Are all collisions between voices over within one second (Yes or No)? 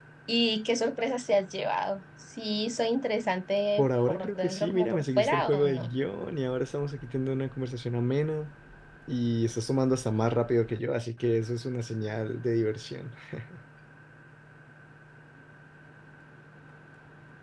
No